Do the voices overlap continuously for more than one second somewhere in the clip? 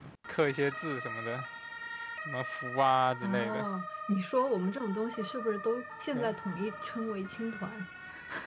No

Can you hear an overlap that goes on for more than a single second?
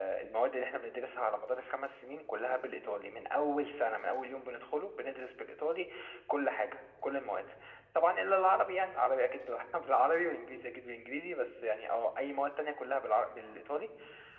No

